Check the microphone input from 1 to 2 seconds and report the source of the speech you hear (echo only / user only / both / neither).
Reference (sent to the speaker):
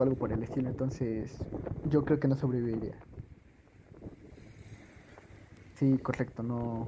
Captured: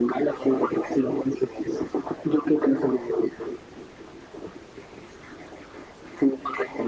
echo only